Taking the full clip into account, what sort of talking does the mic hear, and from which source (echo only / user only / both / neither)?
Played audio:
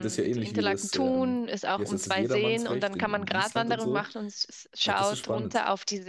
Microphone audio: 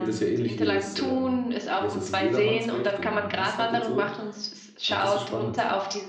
echo only